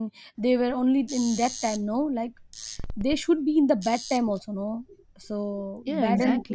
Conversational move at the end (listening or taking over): taking over